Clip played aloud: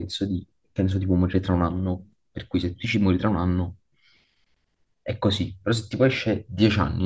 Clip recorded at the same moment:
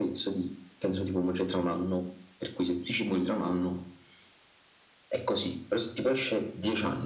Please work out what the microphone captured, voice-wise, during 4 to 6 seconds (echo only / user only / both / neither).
echo only